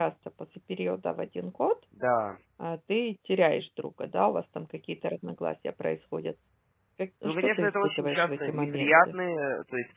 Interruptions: present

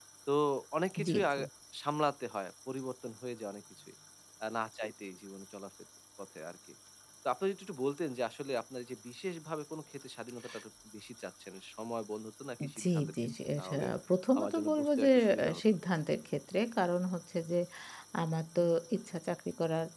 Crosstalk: present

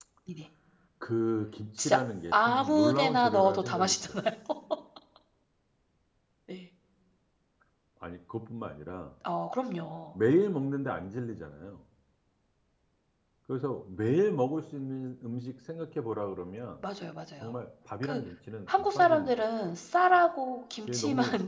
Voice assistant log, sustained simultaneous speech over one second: present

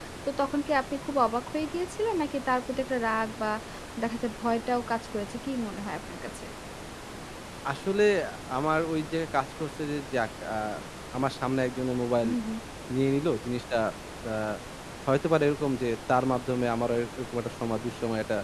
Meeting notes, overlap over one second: none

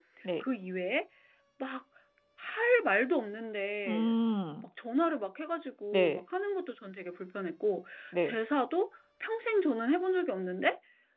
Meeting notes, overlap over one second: none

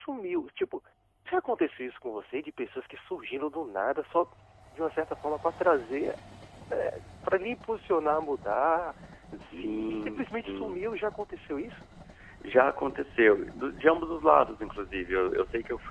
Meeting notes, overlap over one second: present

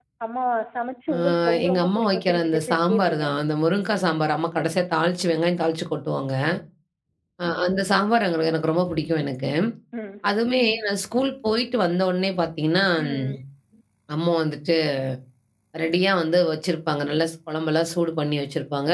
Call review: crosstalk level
present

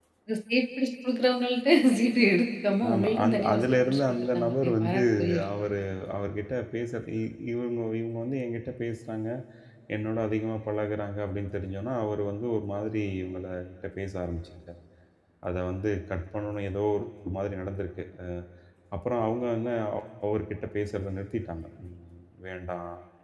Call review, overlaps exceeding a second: present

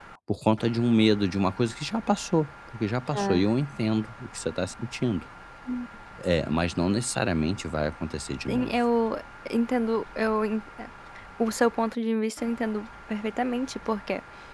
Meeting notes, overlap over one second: none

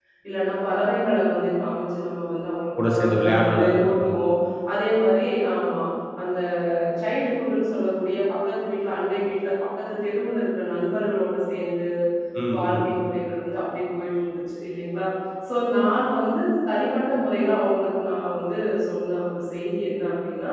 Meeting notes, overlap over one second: present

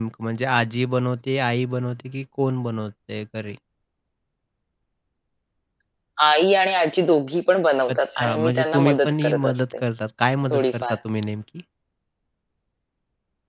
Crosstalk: present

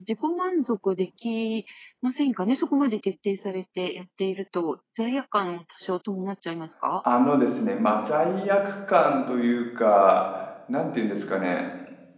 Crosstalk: none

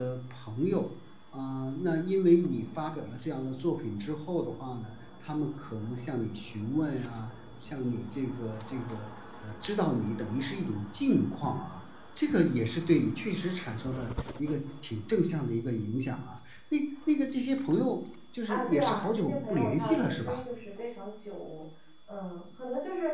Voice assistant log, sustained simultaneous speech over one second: present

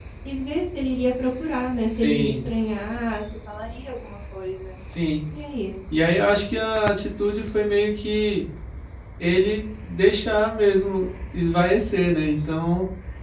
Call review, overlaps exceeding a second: none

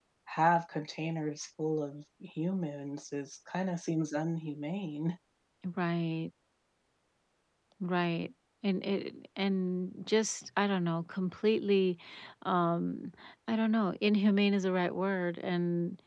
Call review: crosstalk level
none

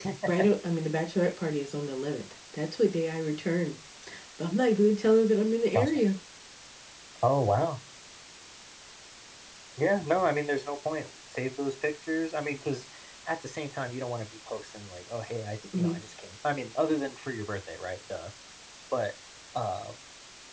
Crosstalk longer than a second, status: none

